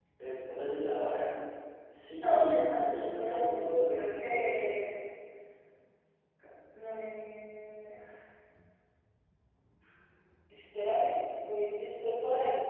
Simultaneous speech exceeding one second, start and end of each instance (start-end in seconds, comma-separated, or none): 2.2-4.9